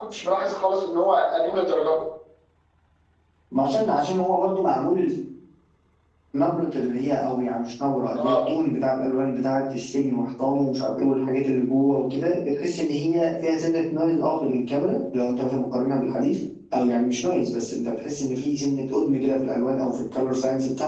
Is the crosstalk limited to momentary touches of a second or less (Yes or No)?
Yes